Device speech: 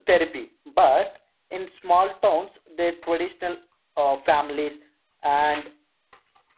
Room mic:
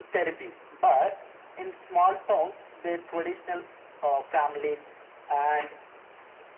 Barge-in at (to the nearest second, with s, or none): none